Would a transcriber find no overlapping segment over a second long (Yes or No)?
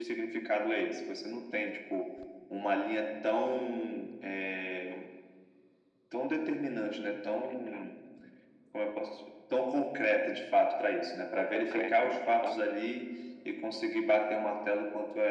No